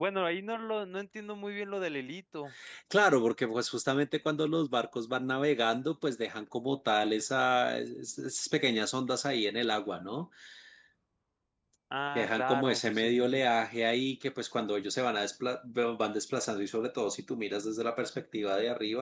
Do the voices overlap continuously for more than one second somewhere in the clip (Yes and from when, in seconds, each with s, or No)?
Yes, from 12.2 s